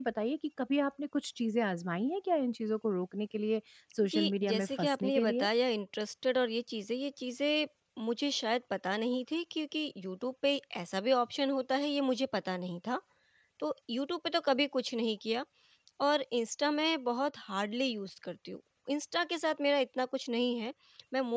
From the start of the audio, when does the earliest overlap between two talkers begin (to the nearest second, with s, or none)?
4 s